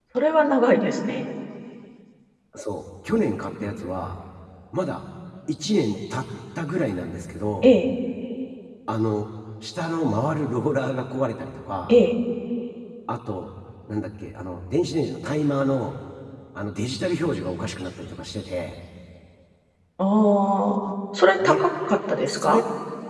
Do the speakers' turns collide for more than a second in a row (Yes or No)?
No